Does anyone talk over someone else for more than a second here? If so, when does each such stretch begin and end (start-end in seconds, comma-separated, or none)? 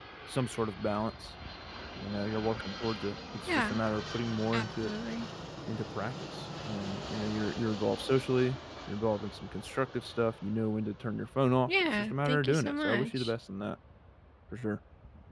11.7-13.3